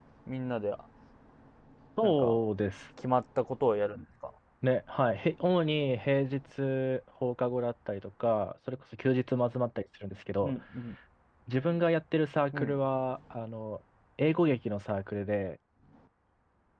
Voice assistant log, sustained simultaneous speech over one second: none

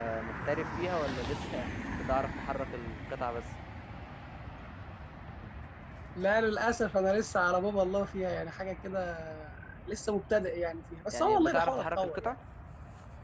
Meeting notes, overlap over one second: present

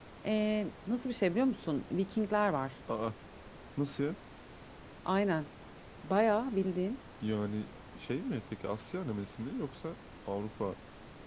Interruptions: none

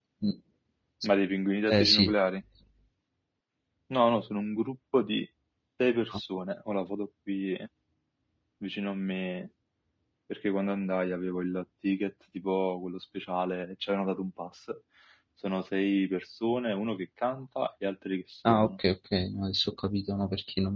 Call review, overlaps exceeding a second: none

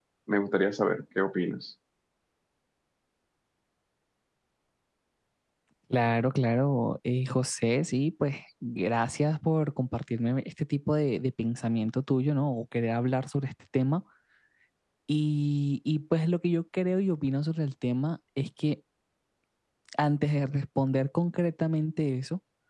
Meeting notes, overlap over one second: none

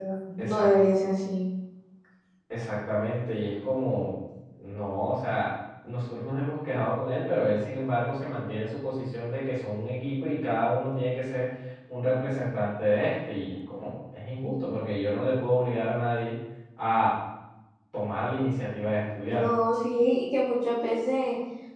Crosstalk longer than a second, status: none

